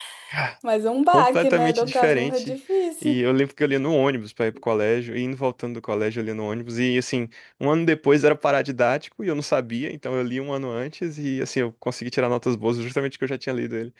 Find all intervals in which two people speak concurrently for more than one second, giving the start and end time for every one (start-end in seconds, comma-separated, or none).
1.1-2.5